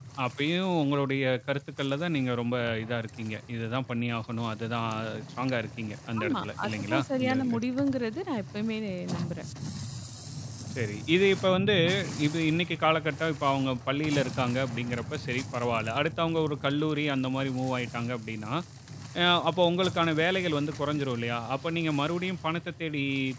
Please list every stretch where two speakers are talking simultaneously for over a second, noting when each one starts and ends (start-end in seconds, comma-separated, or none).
6.2-7.6